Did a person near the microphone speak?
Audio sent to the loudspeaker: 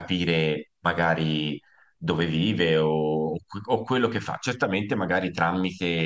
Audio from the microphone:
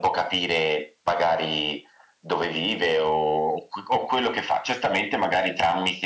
No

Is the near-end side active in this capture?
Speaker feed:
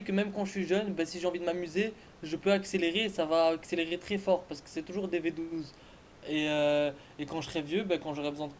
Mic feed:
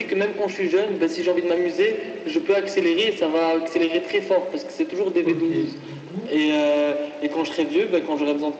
Yes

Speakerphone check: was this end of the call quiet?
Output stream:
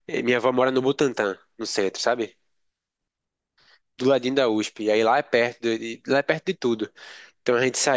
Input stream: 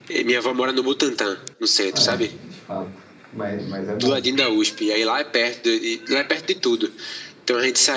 No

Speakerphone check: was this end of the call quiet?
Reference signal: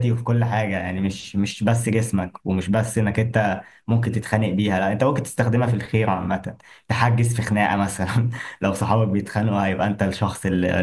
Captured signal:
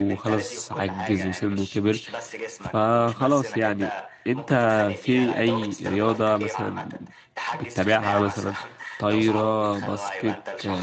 No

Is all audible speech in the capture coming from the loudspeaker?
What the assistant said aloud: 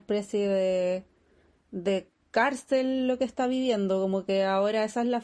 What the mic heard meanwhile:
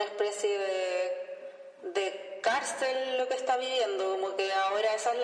Yes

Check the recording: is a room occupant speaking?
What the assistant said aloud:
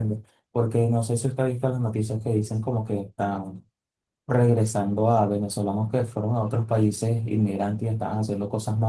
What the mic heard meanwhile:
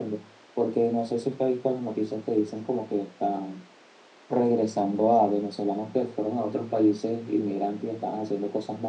No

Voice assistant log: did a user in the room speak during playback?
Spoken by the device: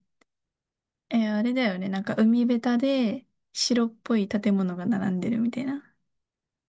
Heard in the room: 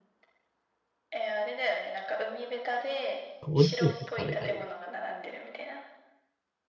Yes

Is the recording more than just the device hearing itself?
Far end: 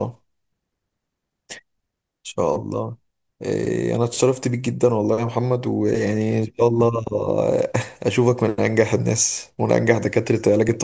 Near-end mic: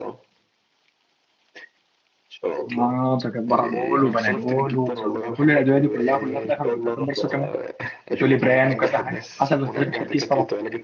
Yes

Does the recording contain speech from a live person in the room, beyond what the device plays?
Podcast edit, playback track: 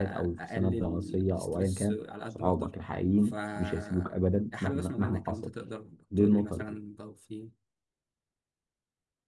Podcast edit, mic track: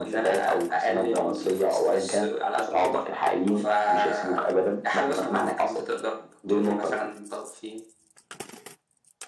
No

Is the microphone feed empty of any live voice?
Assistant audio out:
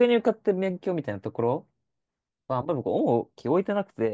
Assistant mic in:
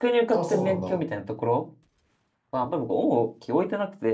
No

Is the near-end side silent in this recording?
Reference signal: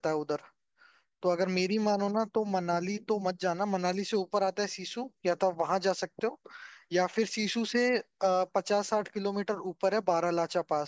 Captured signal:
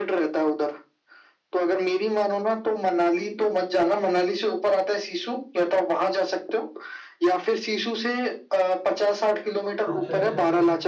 No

